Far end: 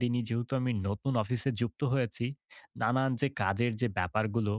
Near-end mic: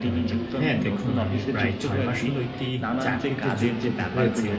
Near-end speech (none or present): present